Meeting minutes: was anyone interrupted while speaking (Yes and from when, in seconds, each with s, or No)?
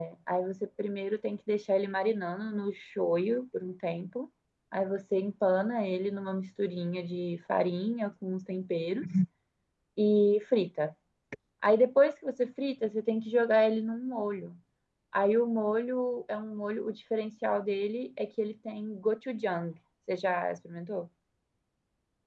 No